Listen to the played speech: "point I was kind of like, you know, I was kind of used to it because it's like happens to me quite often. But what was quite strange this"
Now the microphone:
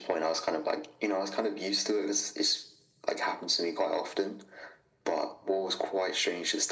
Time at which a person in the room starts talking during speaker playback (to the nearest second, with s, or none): none